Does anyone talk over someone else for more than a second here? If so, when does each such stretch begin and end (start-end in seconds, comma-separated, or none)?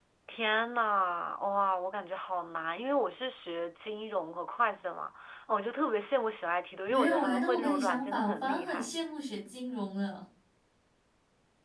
6.9-8.9